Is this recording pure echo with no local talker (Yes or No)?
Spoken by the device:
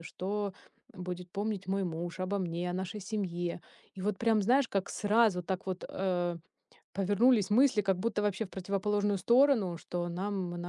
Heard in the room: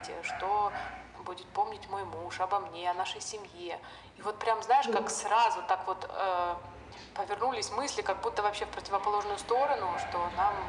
No